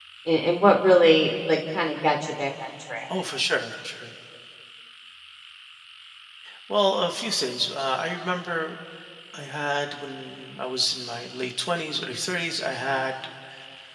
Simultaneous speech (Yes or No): No